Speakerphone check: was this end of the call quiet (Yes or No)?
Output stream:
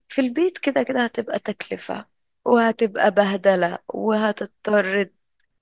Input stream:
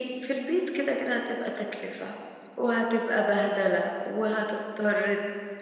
Yes